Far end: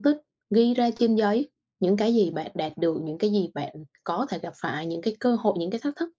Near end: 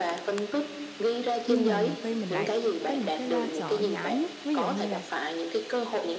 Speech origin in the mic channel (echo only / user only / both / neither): both